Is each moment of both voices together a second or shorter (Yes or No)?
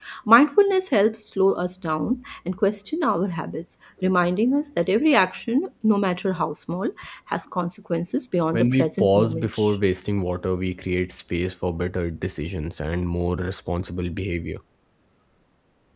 No